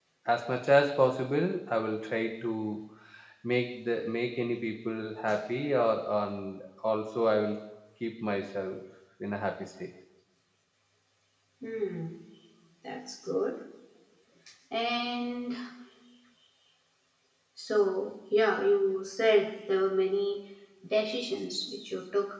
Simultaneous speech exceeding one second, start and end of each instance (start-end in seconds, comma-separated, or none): none